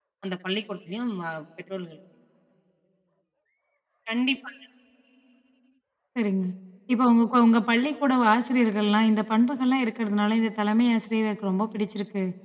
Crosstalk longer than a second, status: none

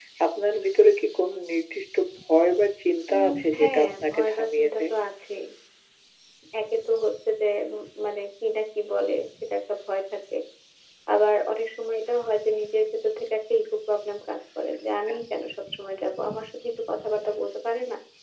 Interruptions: present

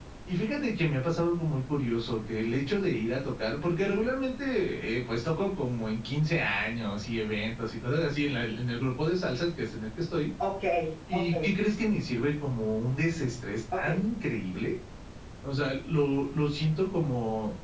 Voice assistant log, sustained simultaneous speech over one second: none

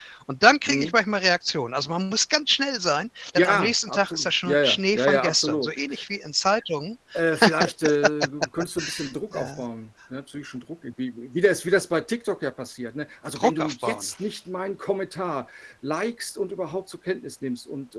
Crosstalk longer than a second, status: present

